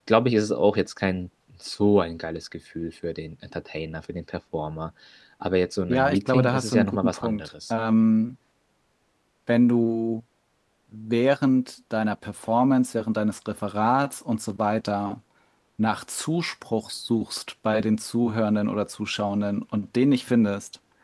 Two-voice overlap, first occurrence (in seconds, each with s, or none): 5.9 s